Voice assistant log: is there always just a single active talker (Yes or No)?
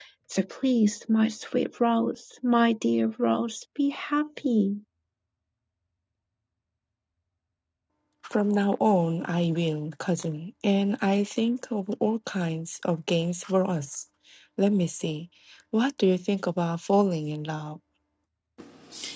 Yes